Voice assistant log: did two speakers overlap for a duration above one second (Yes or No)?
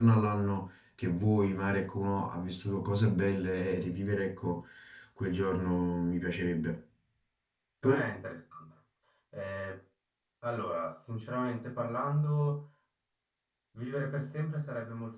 No